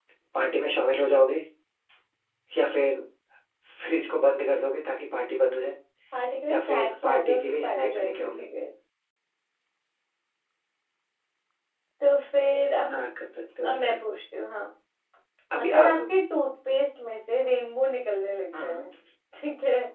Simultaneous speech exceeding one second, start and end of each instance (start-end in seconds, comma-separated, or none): 6.5-8.4